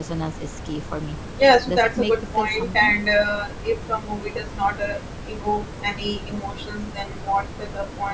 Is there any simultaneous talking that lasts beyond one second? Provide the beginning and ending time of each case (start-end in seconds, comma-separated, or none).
1.6-2.9